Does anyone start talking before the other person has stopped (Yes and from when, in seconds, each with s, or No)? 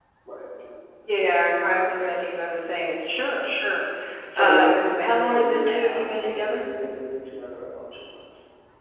Yes, from 4.4 s